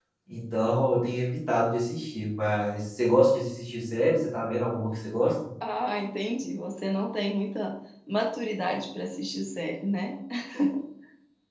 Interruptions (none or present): none